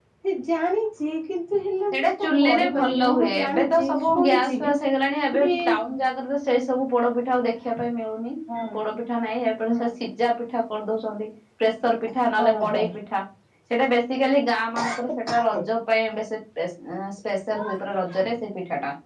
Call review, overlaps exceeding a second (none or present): present